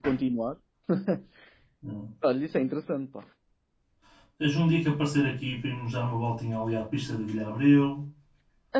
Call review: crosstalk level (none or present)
none